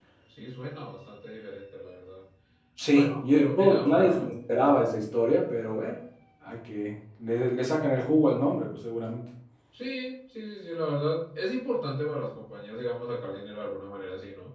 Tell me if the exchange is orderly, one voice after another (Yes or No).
No